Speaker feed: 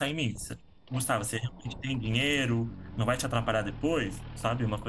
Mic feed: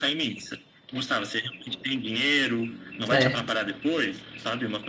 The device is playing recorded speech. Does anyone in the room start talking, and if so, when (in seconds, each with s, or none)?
3.0 s